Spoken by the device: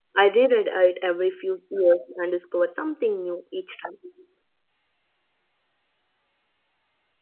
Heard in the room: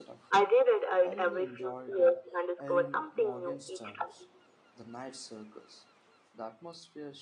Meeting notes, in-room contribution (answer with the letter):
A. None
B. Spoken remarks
B